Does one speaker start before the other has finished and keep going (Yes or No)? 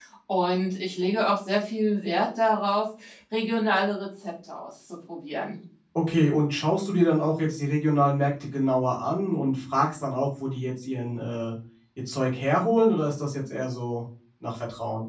No